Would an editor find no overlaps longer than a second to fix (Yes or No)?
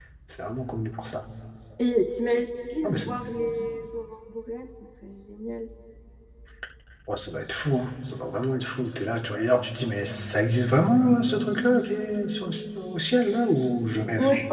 Yes